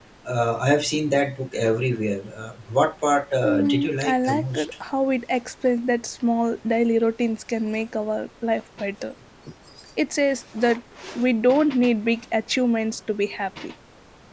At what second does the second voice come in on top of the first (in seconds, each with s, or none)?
3.4 s